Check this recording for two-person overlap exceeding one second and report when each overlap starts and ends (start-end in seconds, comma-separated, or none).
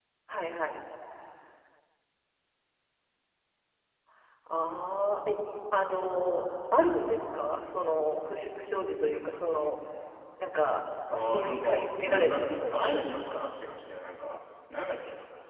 11.1-13.5